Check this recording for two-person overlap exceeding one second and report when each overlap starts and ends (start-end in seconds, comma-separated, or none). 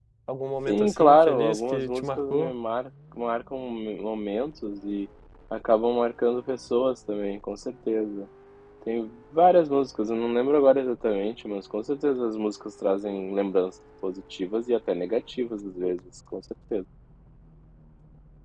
0.7-2.5